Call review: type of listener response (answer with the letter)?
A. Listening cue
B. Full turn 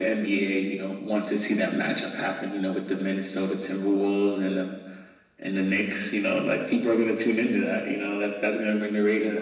B